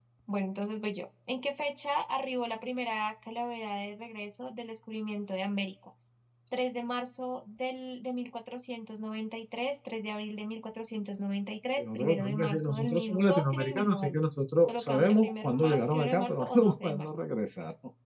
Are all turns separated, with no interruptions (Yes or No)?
No